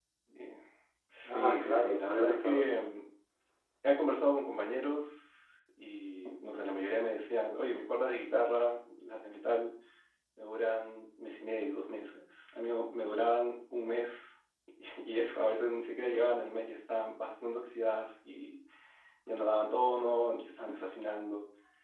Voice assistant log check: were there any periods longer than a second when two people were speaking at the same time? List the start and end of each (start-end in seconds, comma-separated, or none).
1.2-2.8